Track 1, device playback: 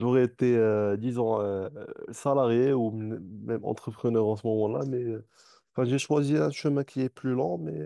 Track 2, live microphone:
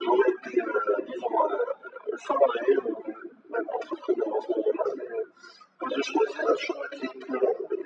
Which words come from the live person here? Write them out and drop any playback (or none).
none